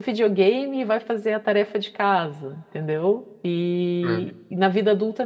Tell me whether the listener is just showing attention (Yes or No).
Yes